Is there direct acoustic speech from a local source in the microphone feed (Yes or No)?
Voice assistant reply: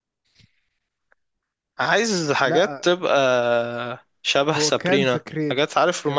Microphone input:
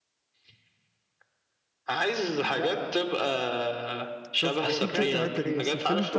Yes